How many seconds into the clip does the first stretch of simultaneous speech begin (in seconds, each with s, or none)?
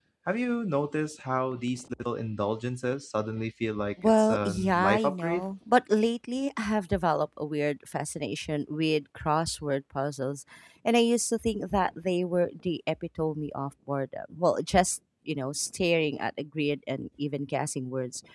4.0 s